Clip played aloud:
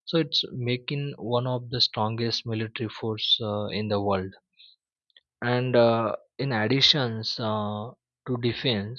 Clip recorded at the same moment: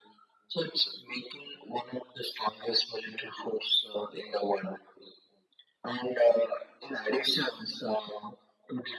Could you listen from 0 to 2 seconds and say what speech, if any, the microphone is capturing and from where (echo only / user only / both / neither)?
echo only